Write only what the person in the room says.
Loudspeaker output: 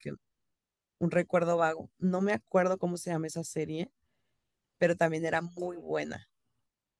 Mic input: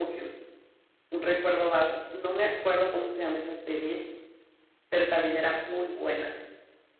none

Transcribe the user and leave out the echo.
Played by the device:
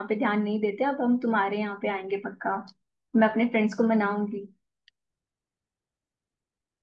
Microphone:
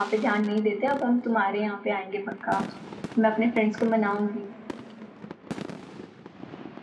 none

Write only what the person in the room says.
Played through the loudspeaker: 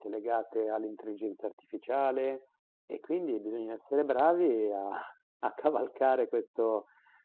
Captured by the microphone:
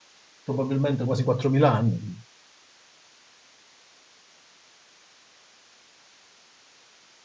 probabilmente quasi 4.000 anni.

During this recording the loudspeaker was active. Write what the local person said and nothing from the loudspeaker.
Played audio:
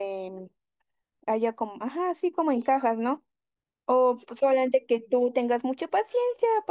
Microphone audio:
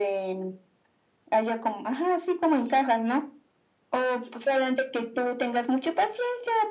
none

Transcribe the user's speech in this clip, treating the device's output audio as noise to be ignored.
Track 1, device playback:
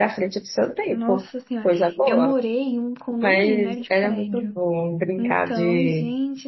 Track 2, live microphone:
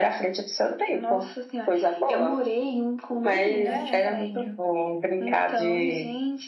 É,

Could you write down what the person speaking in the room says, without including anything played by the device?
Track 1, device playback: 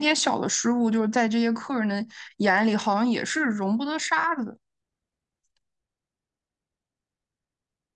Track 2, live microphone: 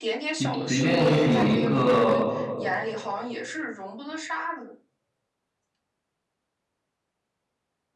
就即便就是有一个

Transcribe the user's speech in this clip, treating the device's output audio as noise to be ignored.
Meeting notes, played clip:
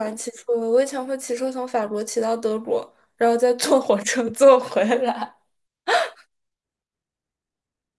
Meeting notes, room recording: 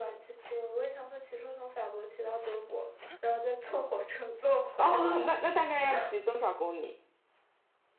哦，那那大概要骑多少公里？

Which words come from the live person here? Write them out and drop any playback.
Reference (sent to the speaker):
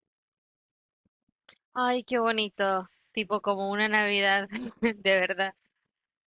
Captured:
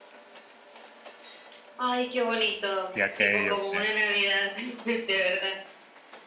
y aquello, sí.

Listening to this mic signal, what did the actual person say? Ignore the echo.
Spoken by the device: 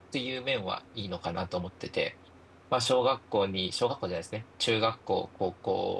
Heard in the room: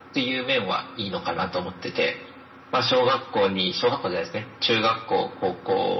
none

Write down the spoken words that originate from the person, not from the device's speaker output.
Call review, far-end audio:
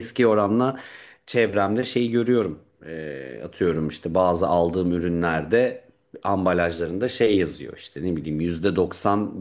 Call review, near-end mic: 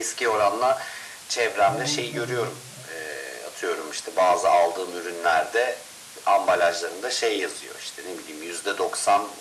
Ne boyuta gelir,

